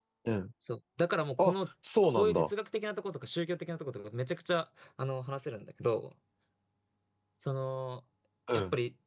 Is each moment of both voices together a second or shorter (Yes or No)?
Yes